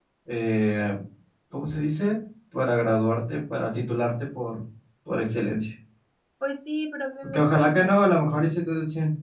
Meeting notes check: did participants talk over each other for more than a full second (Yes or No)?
Yes